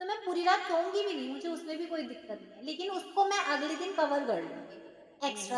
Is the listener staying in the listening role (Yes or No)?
No